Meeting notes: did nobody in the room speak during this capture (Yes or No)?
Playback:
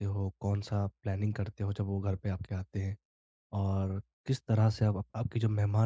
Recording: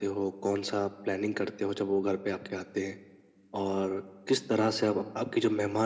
Yes